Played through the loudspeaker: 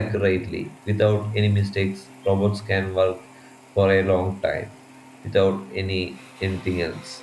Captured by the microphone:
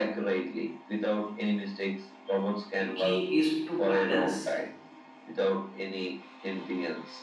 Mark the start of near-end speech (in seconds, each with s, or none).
2.8 s